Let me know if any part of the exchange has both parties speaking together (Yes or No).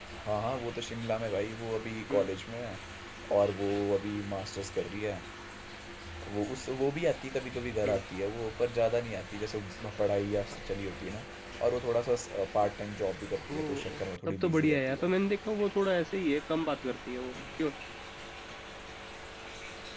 Yes